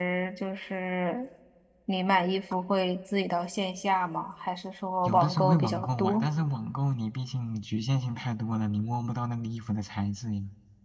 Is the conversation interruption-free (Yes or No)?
No